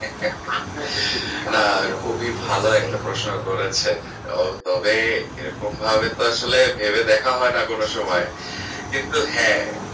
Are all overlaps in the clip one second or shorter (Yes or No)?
No